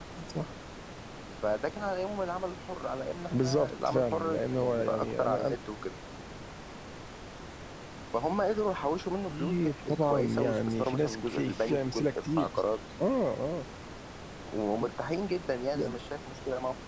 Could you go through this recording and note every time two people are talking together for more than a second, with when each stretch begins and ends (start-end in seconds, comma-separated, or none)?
3.3-5.6, 9.3-12.5